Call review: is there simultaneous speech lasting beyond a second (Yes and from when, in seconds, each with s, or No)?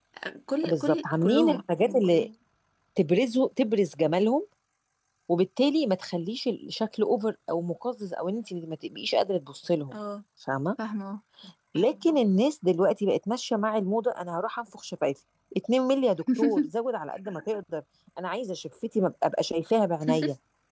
Yes, from 0.7 s